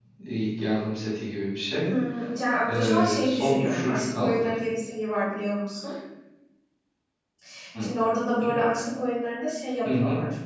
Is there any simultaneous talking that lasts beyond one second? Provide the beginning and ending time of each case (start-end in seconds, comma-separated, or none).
2.7-4.5